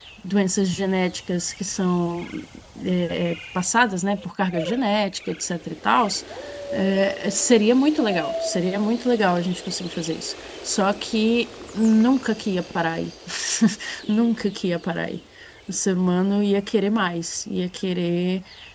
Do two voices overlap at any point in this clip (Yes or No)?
No